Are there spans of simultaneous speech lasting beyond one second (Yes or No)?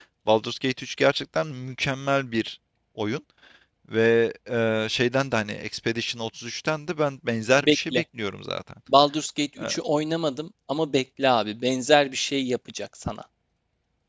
No